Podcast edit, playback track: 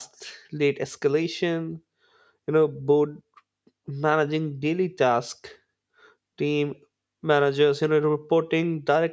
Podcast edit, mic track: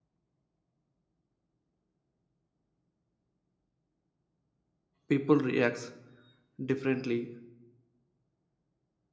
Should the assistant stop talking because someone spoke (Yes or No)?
Yes